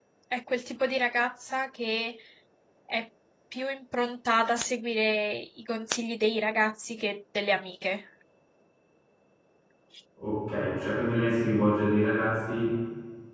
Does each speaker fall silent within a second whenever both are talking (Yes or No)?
Yes